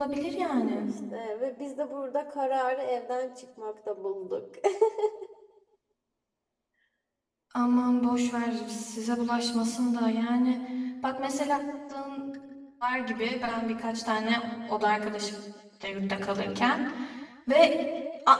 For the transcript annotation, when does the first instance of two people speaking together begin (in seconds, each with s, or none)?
none